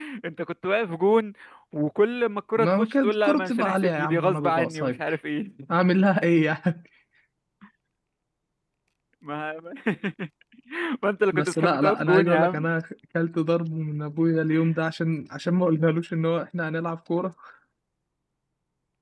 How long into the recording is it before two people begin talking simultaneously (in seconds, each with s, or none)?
2.6 s